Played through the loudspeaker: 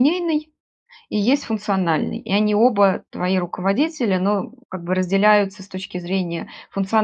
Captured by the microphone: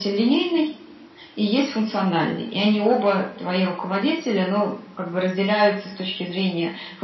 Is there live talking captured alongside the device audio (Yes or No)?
No